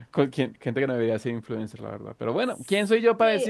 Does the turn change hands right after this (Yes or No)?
Yes